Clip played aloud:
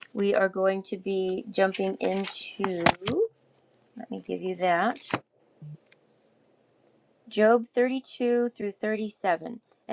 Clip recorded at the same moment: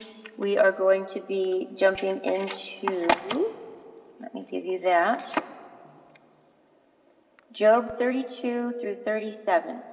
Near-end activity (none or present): none